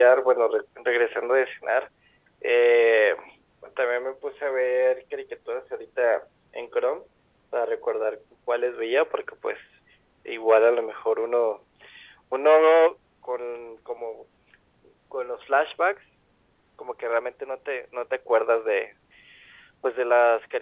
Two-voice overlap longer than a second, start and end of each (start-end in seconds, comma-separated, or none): none